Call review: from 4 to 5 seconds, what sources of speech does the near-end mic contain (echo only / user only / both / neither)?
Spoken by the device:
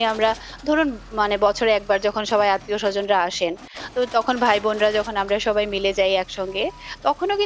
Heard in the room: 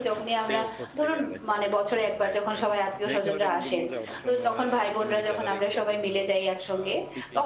both